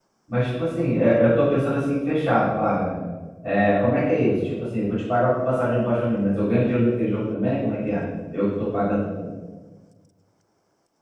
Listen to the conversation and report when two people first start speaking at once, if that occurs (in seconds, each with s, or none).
none